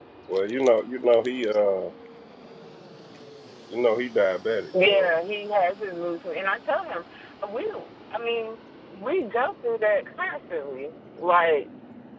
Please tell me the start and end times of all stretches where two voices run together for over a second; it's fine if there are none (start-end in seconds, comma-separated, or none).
none